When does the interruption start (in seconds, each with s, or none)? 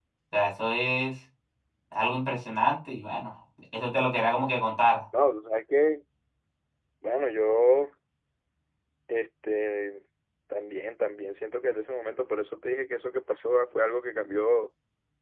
none